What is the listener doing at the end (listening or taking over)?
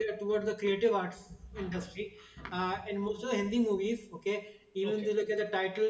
listening